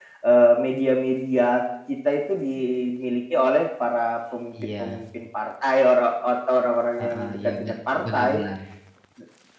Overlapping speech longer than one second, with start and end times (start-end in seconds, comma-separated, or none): 7.0-8.4